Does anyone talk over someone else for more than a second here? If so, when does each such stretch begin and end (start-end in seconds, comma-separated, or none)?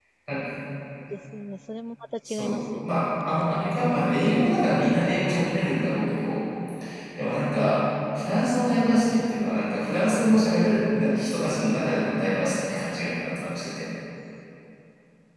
none